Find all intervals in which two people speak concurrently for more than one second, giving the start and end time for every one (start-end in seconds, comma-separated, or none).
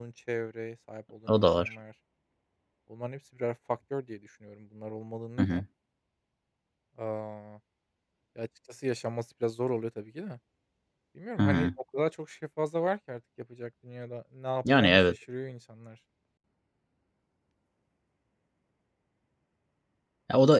none